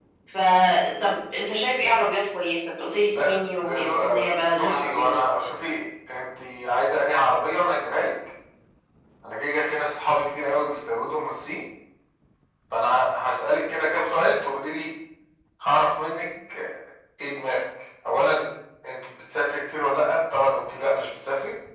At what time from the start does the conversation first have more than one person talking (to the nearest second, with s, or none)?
3 s